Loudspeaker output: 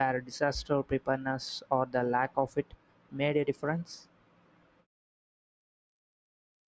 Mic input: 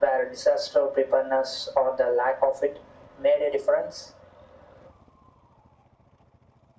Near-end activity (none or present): none